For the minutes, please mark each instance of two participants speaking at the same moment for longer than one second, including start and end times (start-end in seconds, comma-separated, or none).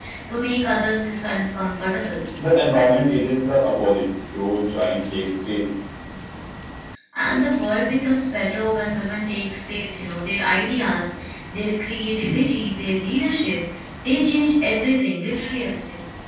none